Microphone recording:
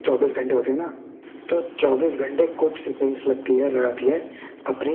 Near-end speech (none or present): none